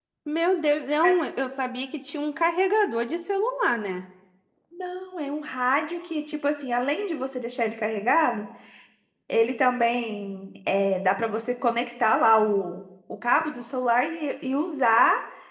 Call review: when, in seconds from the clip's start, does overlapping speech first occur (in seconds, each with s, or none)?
none